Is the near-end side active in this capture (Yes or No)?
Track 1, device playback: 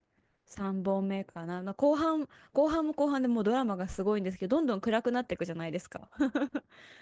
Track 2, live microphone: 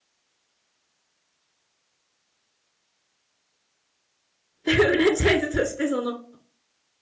Yes